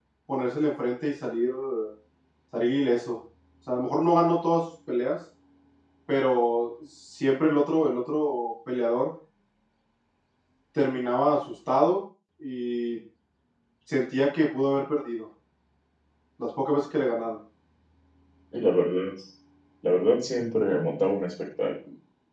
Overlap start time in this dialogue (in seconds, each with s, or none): none